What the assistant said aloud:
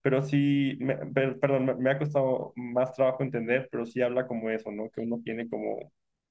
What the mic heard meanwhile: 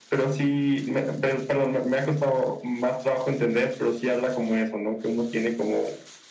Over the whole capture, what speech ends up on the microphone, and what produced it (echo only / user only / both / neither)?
echo only